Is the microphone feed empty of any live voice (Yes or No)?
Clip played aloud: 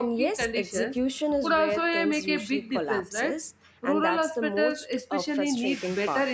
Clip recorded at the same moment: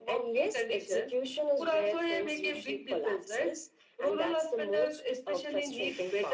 Yes